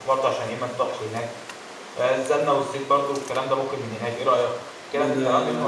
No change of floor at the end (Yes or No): No